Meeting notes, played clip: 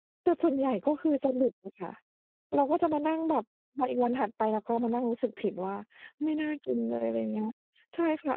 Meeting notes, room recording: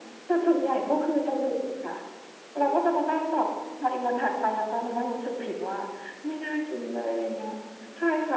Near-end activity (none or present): none